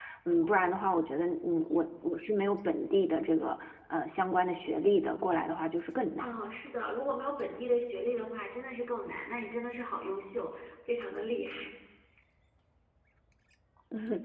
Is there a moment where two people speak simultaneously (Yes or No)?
No